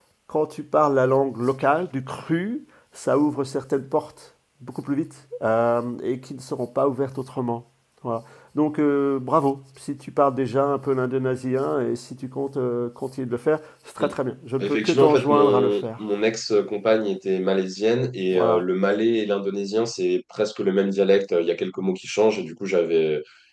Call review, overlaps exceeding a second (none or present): present